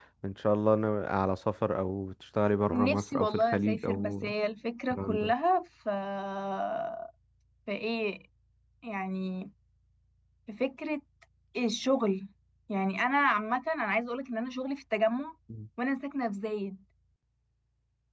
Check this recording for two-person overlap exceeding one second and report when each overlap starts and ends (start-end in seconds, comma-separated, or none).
2.7-4.3